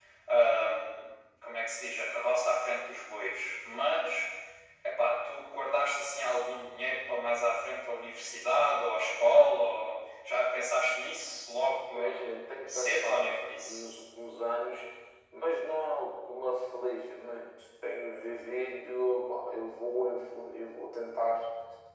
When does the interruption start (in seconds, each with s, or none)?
11.9 s